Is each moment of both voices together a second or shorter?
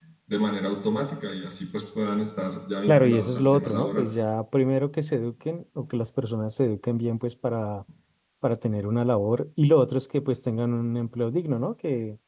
No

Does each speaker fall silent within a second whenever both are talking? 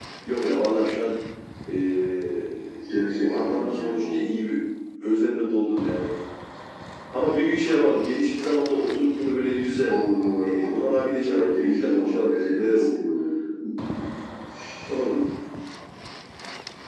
No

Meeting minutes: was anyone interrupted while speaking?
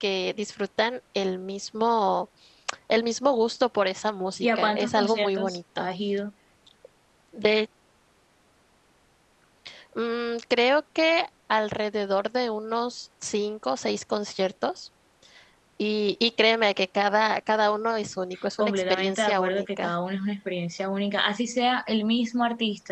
Yes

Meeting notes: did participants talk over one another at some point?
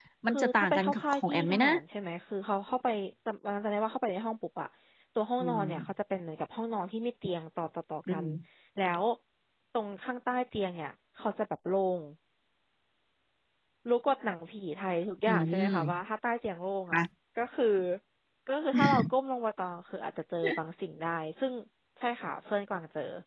Yes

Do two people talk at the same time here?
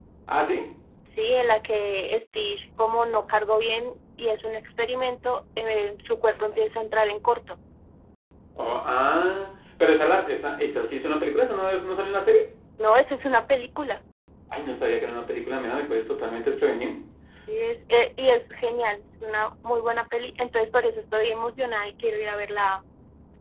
No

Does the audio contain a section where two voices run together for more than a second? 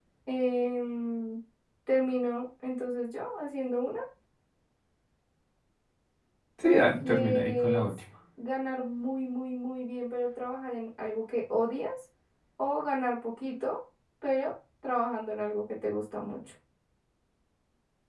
Yes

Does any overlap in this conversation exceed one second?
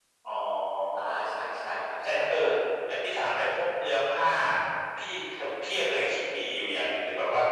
No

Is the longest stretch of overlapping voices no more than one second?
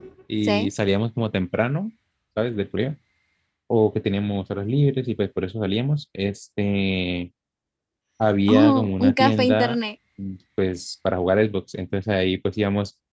No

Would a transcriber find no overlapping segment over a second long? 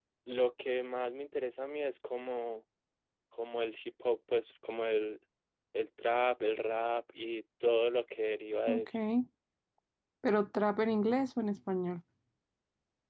Yes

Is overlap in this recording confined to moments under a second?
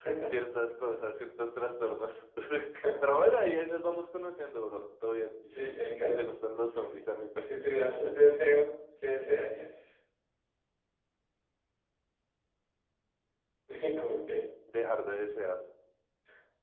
Yes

